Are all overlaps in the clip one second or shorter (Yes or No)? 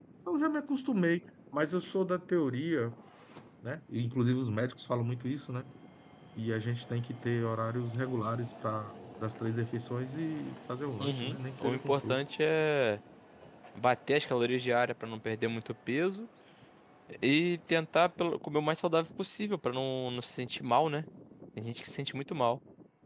No